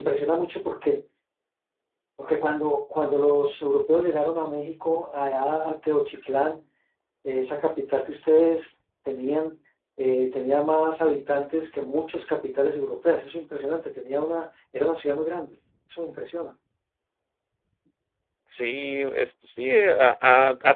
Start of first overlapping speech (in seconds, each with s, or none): none